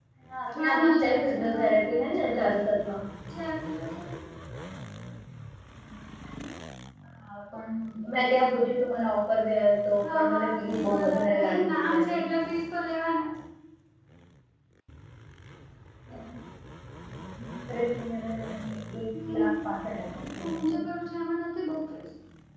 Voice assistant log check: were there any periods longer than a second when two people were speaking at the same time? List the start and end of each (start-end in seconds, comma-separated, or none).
0.6-2.5, 10.0-12.2